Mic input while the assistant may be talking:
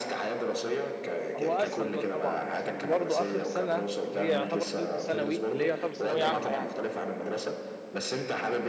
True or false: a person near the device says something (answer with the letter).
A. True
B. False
A